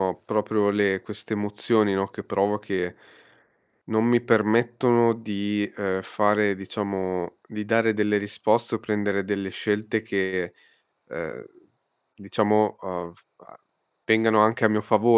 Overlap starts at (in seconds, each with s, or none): none